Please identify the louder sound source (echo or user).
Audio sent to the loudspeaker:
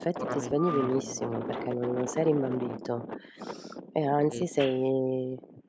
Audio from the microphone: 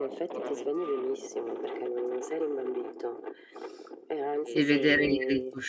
user